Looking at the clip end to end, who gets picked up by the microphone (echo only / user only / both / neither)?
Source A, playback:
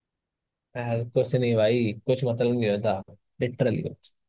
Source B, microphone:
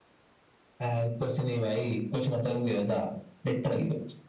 echo only